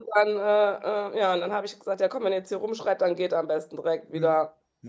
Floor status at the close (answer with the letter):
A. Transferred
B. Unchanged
A